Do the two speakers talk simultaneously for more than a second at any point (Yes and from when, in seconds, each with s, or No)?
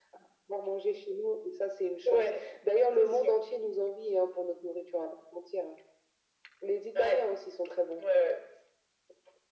No